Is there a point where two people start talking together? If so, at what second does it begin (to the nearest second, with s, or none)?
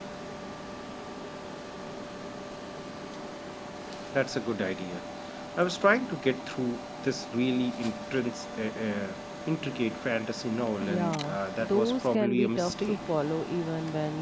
11 s